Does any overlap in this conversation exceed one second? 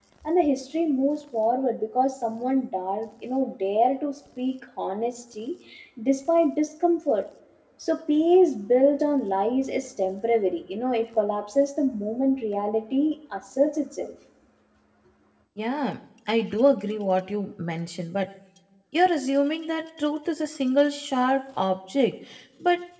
No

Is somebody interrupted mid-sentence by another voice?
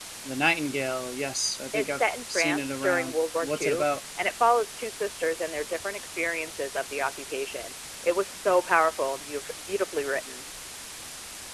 Yes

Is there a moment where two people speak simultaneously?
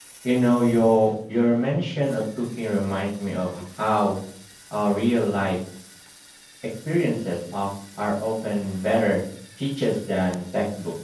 No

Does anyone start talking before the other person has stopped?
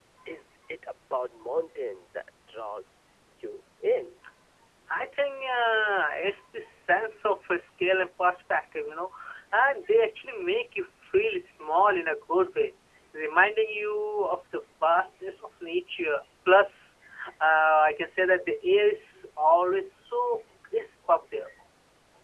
No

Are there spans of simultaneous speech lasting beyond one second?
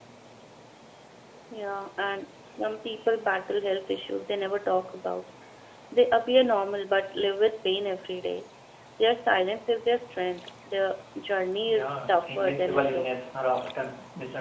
Yes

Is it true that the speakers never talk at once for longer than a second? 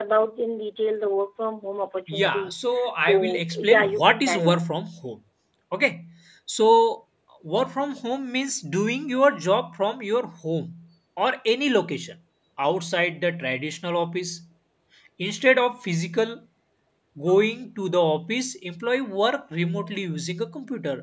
No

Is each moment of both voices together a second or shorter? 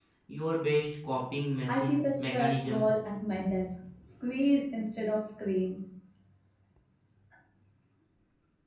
No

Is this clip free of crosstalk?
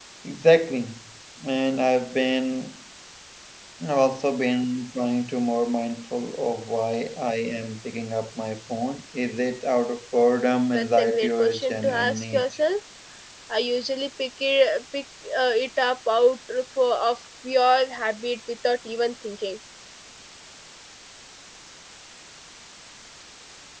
No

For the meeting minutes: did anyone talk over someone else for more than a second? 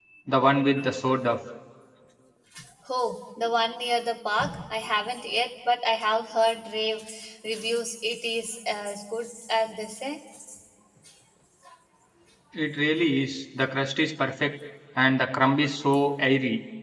No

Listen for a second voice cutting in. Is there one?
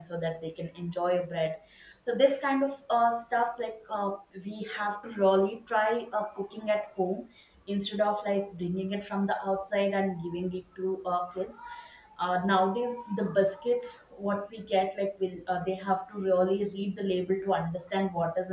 No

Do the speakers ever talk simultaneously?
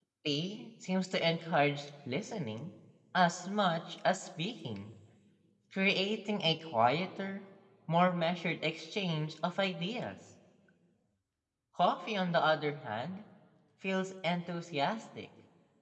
No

